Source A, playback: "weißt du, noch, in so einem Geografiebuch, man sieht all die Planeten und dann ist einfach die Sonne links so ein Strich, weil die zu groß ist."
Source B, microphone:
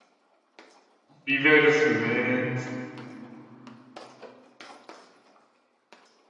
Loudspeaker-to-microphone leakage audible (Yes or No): No